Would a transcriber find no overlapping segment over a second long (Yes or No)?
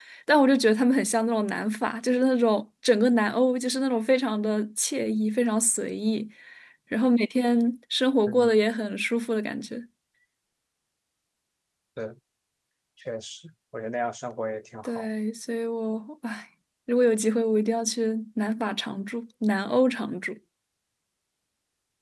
Yes